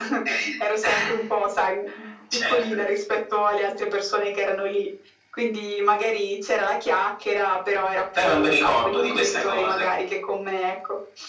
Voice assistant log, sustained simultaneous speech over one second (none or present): present